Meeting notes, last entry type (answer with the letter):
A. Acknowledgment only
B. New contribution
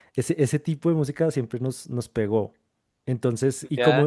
A